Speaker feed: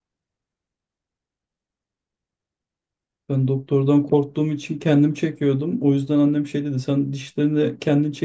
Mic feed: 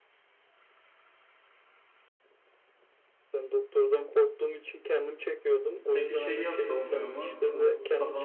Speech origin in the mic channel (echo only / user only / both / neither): both